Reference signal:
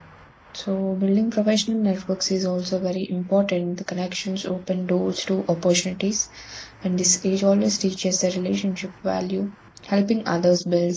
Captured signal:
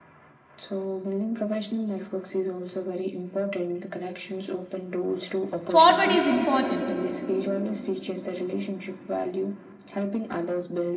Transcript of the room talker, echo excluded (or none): forward is important.